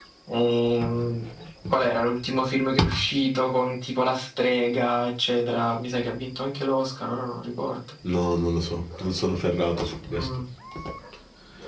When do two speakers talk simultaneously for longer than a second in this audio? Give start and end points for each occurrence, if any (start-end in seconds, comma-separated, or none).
none